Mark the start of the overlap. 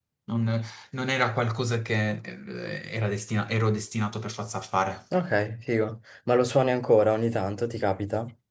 none

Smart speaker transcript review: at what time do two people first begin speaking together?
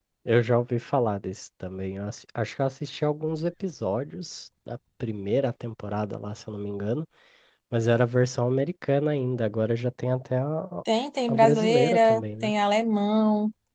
11.3 s

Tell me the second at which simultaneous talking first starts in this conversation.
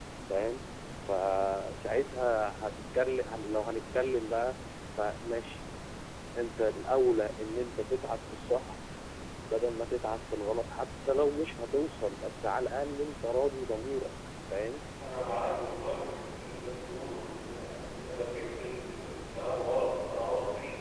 none

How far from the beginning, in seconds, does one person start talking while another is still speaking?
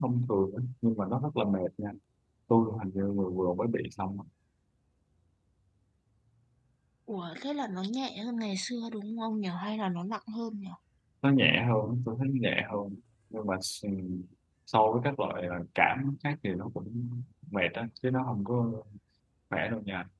none

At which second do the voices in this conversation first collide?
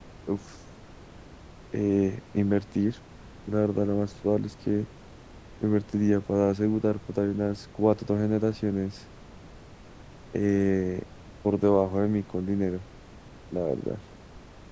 none

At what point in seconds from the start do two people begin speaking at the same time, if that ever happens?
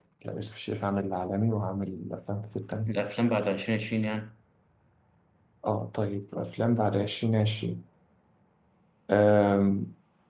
none

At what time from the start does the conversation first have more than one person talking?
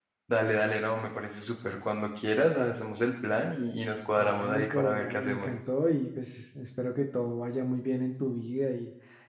4.2 s

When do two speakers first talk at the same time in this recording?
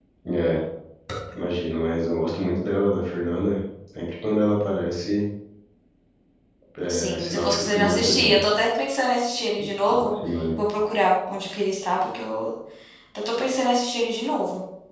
6.9 s

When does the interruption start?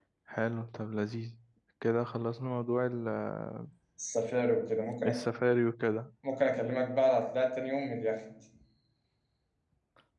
none

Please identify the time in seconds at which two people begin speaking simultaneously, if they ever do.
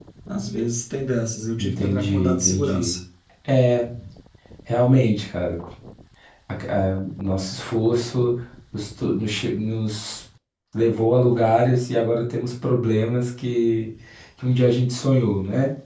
1.6 s

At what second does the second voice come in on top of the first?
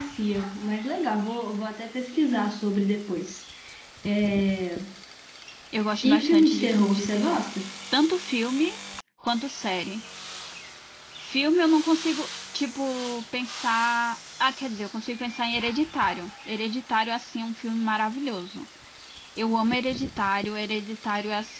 6.1 s

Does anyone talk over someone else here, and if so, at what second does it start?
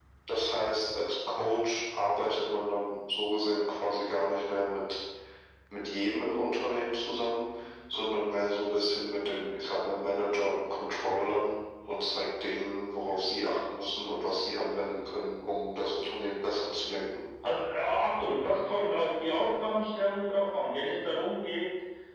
none

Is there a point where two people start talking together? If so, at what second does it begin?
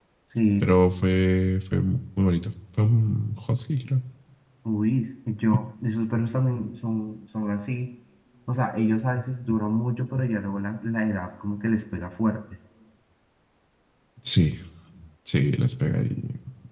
none

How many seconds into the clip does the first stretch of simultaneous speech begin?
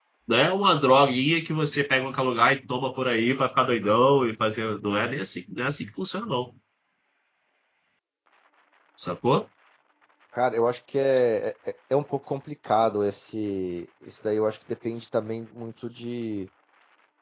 none

